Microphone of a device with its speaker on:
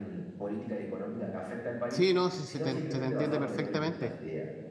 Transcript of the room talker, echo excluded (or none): Sí, no, sí, se te, se te entiende perfectamente.